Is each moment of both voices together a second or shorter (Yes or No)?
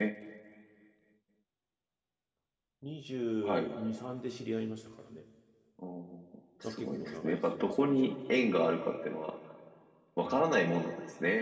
No